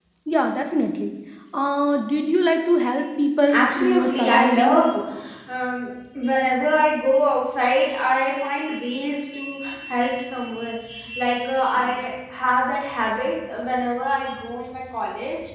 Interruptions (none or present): present